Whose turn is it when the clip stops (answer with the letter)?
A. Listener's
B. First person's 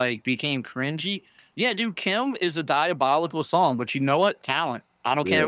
B